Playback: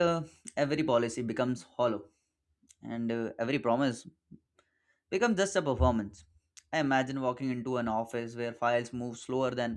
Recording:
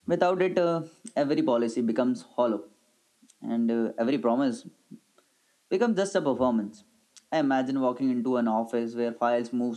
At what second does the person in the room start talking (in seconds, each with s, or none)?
none